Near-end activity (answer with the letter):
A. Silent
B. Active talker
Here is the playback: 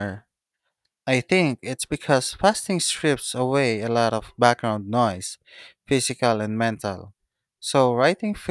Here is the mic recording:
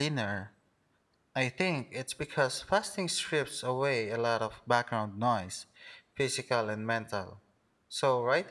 A